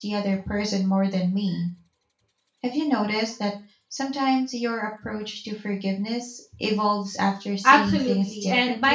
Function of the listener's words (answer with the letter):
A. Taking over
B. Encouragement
A